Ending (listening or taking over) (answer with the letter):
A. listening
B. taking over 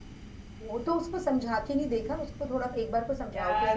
B